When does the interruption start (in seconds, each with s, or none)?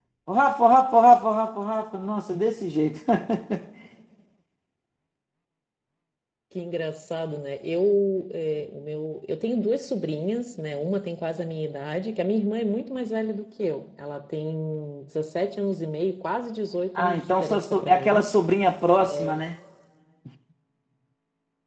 17.0 s